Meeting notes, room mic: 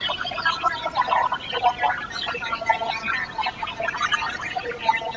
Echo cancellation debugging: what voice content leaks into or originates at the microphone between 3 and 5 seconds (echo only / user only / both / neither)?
echo only